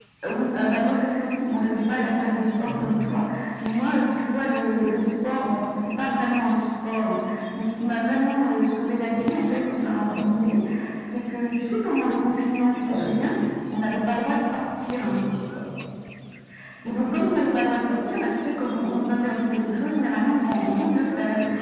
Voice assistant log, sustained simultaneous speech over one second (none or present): none